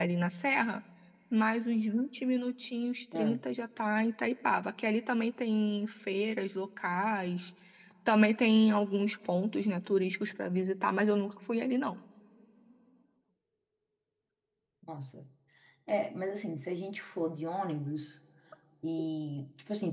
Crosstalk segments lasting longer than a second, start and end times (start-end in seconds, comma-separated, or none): none